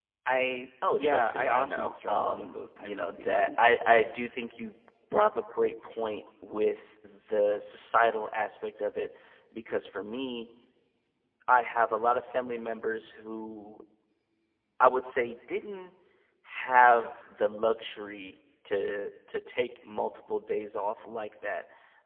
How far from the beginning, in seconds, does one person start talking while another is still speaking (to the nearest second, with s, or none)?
1 s